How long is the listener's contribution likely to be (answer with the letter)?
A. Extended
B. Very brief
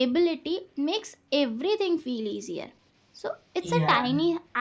B